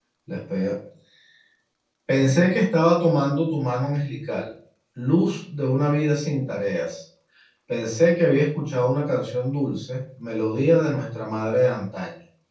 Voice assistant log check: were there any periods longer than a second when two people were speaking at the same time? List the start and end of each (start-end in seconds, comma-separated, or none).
none